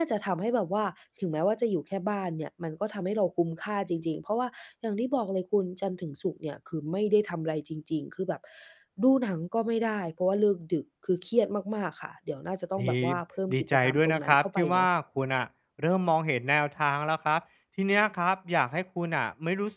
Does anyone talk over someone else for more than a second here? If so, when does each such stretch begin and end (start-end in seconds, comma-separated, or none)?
13.5-14.9